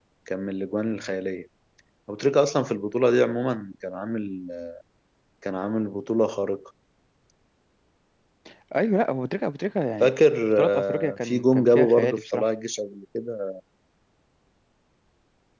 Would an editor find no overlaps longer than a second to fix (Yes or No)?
No